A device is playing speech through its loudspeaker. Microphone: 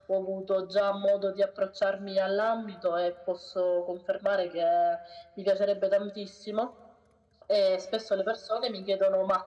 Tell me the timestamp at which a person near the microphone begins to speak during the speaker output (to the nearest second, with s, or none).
none